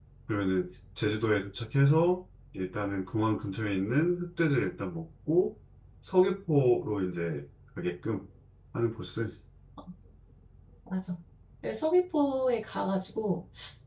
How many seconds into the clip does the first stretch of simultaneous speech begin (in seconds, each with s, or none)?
none